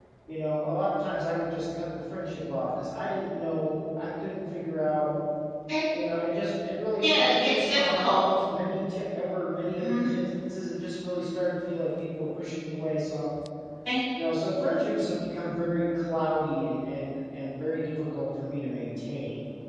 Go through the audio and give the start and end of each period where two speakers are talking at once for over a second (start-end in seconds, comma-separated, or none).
7.0-8.3